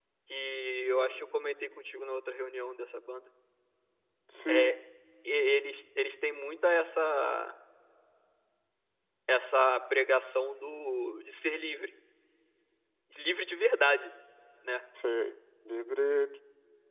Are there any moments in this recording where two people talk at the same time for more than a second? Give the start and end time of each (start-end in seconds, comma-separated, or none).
none